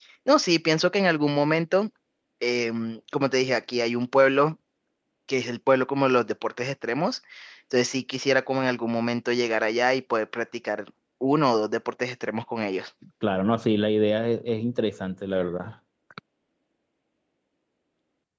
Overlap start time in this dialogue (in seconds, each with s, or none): none